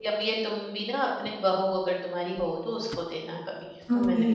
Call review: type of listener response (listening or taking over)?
taking over